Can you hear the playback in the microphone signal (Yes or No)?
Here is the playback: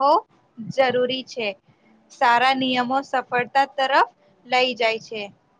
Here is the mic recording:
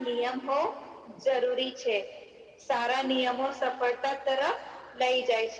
Yes